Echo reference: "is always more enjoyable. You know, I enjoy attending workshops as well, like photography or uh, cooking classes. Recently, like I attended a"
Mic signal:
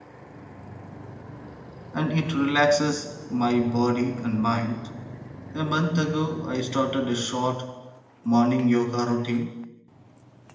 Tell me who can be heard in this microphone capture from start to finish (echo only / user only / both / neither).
user only